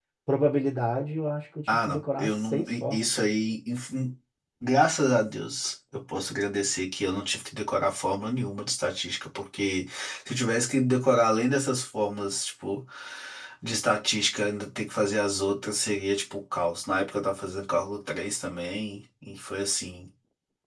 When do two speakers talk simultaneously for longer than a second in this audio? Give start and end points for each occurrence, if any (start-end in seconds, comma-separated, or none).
1.7-3.1